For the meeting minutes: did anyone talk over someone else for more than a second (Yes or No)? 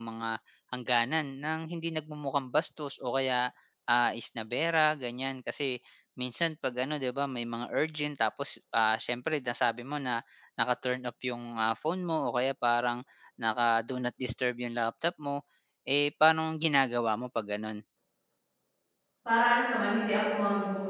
No